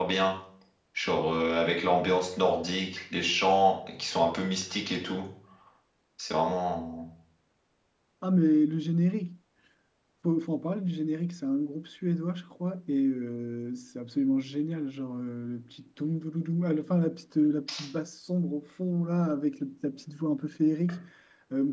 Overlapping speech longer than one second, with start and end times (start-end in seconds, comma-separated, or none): none